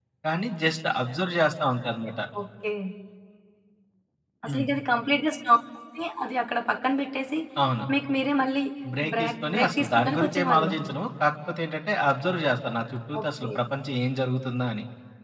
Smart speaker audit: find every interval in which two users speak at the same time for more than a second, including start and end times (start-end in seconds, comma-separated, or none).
9.2-10.7